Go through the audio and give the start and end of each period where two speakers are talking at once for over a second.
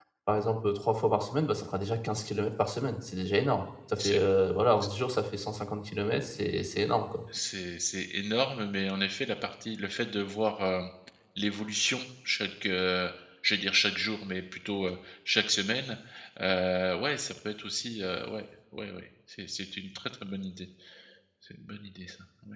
none

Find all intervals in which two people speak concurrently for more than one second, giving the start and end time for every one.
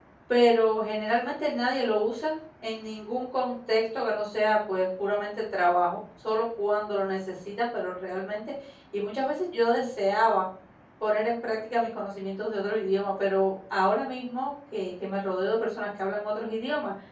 none

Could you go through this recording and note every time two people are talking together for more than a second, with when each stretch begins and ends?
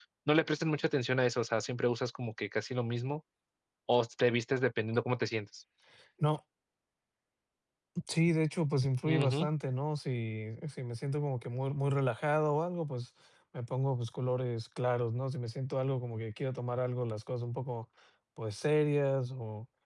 none

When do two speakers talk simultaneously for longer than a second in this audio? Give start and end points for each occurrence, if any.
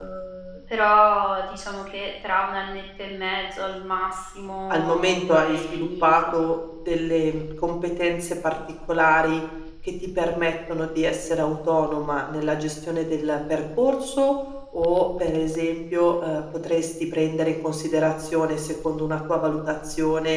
4.7-6.2

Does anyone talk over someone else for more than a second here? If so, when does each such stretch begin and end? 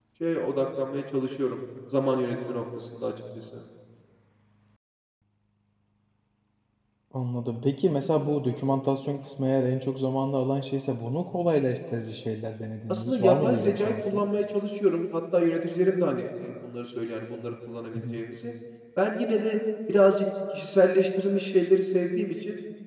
12.9-14.2

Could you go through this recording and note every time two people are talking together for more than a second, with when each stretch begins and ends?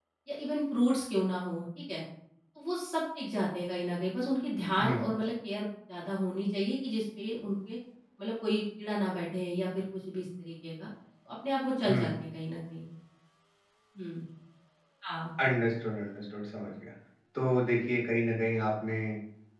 none

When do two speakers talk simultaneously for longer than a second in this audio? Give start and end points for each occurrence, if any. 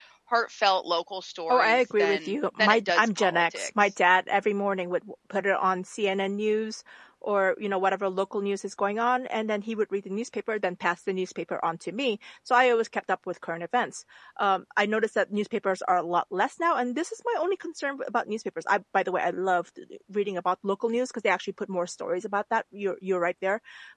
1.5-3.9

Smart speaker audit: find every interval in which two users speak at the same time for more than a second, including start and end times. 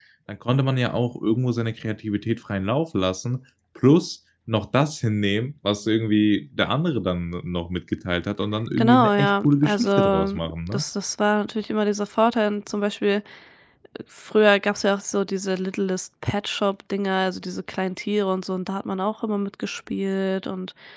8.8-10.8

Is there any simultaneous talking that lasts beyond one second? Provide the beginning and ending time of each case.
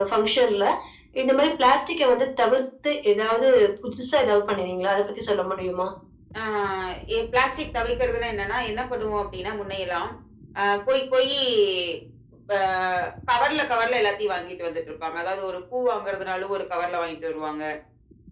none

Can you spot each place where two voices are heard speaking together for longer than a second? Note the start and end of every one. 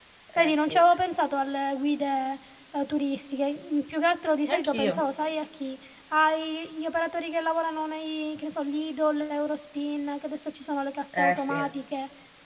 none

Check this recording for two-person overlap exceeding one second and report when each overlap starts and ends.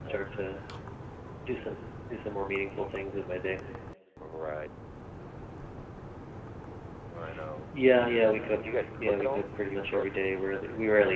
8.7-10.1

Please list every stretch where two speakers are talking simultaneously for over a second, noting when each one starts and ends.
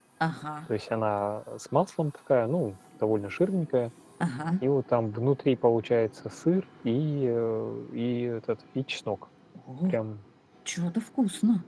none

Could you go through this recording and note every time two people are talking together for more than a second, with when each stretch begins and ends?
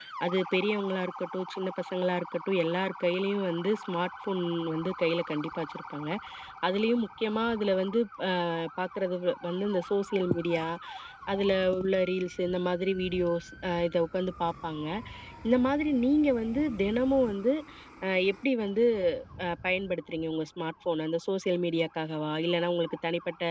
none

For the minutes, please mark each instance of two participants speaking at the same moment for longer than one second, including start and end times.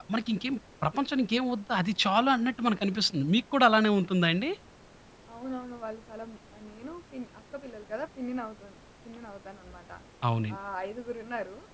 none

